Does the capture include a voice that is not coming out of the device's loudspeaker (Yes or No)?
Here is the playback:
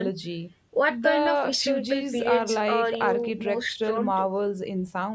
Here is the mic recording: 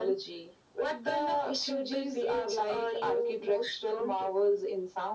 No